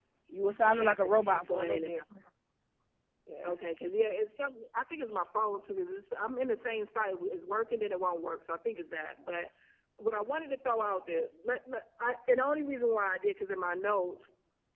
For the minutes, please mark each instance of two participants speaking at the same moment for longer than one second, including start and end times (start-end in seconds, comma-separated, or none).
0.6-2.0